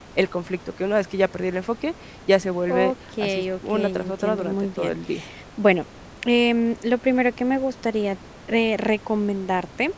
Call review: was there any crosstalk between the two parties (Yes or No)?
Yes